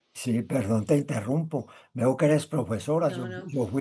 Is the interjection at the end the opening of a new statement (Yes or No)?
No